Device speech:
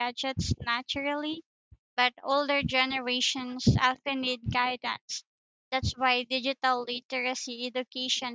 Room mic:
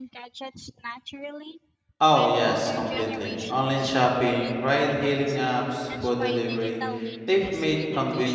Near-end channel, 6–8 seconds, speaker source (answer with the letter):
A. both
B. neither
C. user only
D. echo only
A